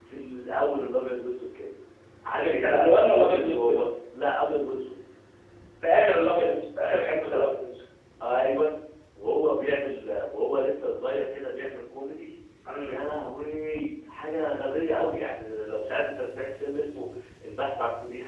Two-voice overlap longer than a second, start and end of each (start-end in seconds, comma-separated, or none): 2.3-3.8